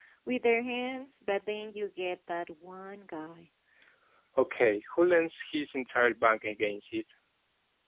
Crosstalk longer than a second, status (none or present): none